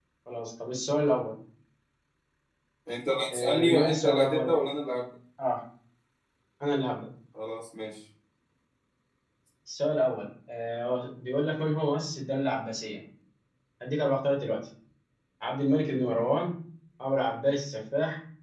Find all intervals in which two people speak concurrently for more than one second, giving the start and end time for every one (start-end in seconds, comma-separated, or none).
3.3-4.5